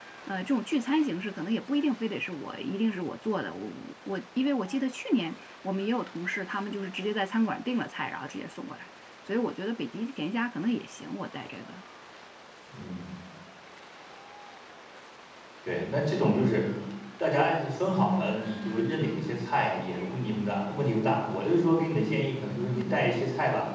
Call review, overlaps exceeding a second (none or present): none